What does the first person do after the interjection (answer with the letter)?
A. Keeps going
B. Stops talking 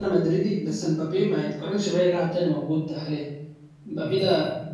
A